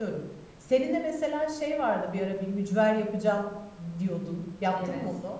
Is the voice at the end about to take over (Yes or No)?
Yes